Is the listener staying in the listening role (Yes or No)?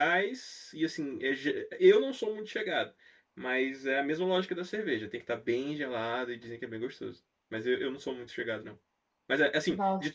Yes